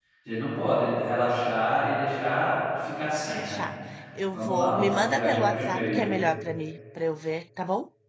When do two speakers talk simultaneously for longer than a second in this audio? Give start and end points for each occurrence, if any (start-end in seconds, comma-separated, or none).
4.3-6.1